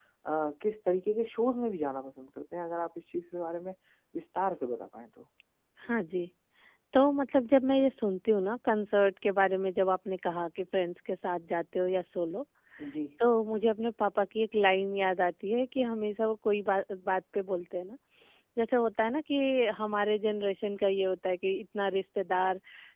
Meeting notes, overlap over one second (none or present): none